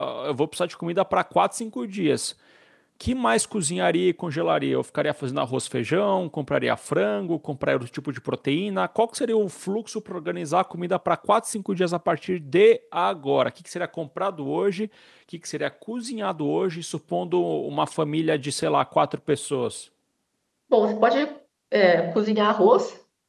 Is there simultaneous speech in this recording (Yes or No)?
No